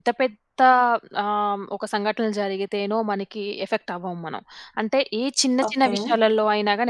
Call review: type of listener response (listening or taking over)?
listening